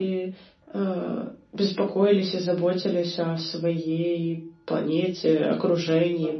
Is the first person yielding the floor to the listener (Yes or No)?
Yes